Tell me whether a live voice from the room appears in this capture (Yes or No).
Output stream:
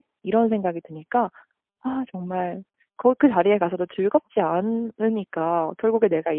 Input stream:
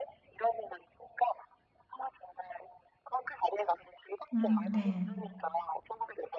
Yes